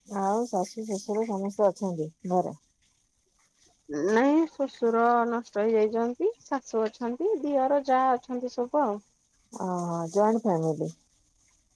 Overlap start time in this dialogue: none

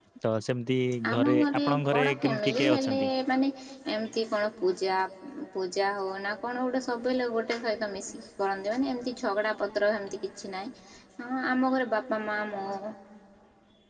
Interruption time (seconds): 1.1 s

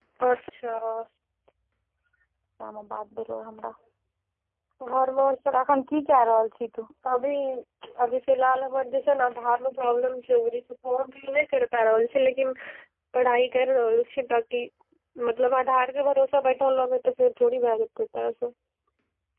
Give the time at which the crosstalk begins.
none

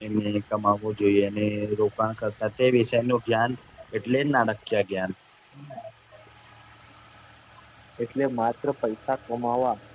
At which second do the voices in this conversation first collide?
none

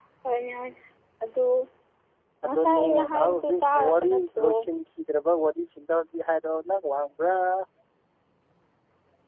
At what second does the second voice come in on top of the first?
2.4 s

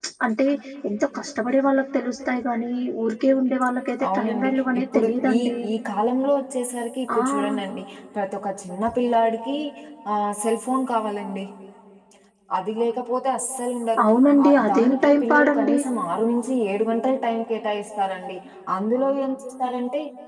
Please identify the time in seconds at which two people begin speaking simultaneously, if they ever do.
4.1 s

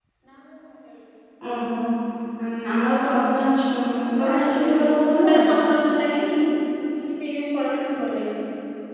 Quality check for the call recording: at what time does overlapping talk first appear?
4.2 s

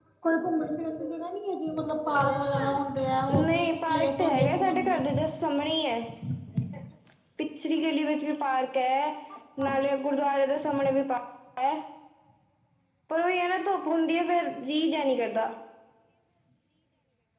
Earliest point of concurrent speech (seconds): 3.3 s

